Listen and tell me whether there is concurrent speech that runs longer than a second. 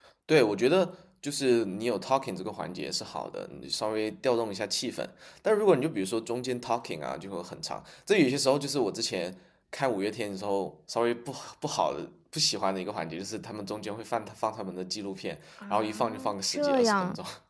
Yes, from 15.6 s

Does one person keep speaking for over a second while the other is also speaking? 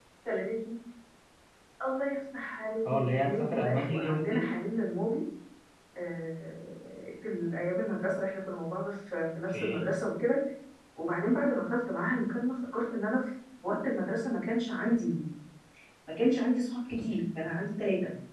Yes, from 2.9 s

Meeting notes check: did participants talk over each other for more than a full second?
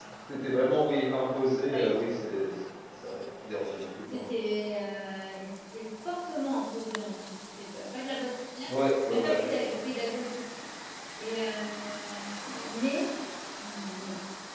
No

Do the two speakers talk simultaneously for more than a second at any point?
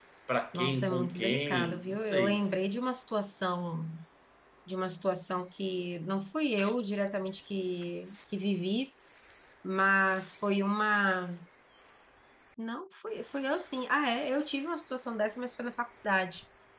Yes, from 0.6 s

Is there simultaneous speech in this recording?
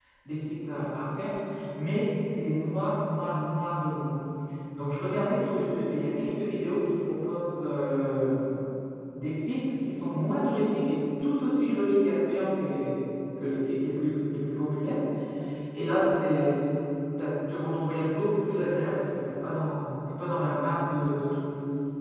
No

